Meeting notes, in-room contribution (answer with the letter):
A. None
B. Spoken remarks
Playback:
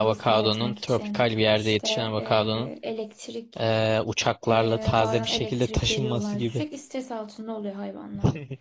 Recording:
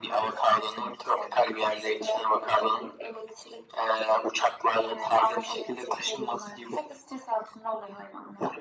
A